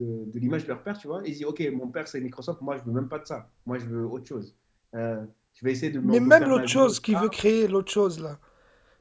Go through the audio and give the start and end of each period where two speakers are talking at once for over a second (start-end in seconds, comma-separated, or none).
6.0-7.3